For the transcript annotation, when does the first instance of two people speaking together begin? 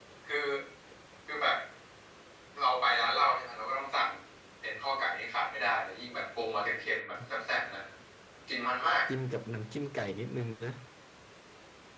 none

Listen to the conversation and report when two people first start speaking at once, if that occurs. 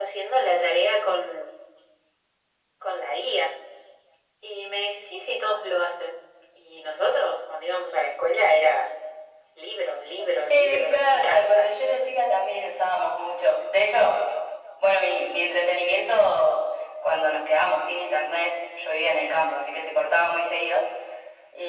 10.5 s

